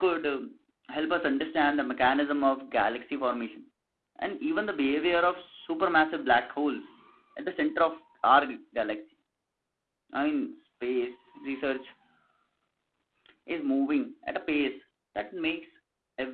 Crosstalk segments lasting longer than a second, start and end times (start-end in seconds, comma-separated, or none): none